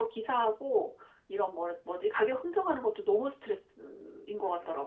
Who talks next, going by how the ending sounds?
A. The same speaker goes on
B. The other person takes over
B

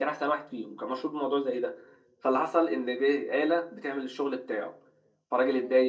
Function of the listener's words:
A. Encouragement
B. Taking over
A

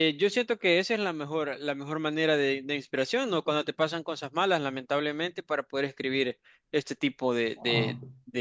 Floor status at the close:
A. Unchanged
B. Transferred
A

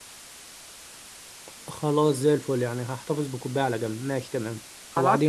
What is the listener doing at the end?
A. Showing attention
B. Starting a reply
B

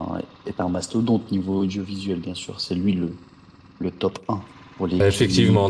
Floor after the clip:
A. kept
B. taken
B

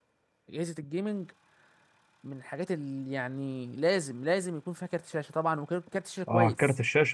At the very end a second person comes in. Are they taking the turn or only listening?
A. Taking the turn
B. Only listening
A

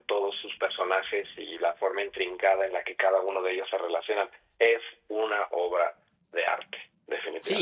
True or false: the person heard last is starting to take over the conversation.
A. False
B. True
B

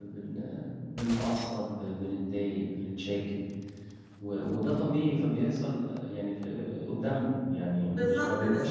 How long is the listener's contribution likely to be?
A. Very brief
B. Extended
B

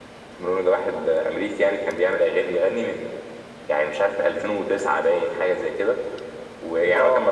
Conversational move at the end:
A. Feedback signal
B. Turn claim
A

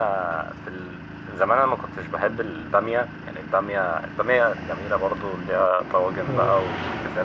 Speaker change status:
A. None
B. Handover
A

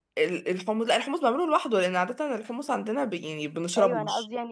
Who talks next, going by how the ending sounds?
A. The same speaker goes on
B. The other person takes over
B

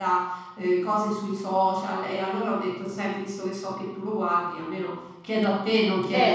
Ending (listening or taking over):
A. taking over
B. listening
A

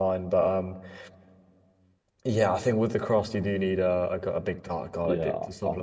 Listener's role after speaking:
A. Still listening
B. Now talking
B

